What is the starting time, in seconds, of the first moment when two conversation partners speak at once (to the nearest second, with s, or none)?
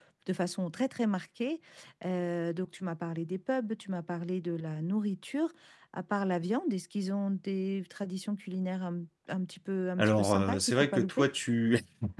10 s